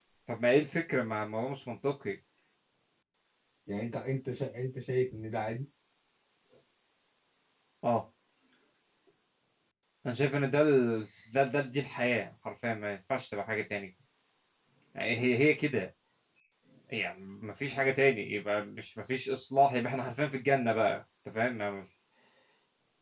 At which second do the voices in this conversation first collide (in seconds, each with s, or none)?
none